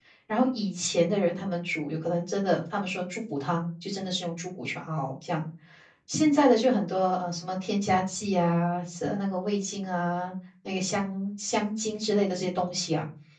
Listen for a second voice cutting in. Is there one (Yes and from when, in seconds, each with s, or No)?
No